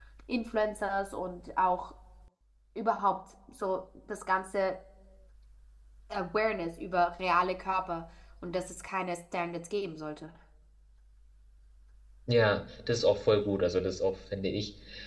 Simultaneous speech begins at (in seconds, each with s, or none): none